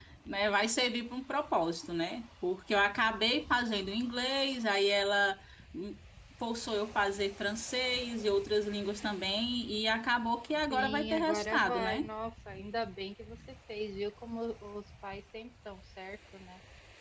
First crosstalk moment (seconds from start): 10.7 s

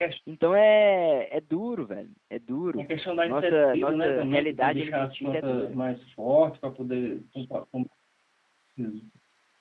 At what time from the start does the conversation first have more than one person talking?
3.2 s

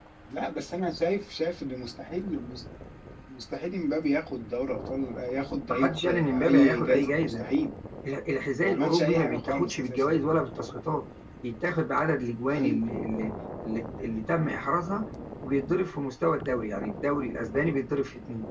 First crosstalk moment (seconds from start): 5.7 s

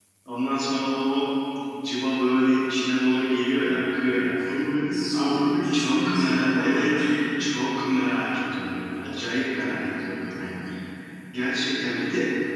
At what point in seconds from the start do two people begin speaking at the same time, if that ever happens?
5.1 s

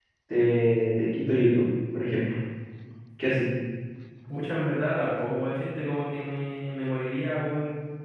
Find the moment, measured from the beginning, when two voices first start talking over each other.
none

